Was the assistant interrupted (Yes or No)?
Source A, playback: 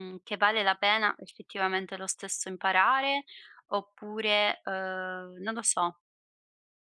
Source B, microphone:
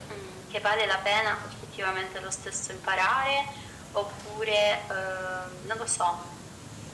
No